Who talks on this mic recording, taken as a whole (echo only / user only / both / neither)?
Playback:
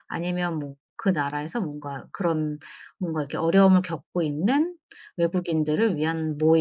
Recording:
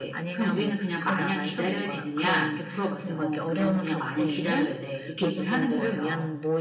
both